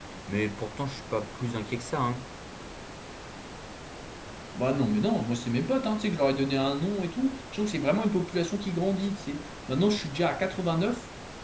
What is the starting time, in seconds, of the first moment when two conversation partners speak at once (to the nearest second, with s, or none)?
none